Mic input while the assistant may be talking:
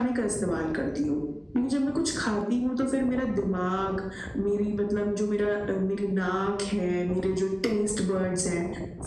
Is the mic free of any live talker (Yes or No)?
Yes